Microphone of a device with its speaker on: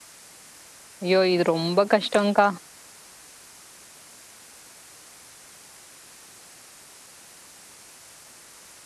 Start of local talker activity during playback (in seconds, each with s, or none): 1.0 s